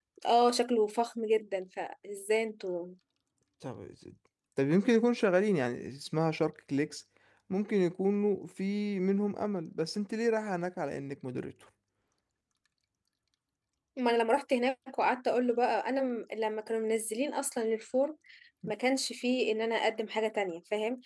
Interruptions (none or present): none